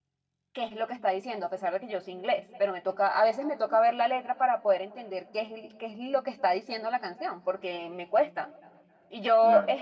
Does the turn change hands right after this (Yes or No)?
No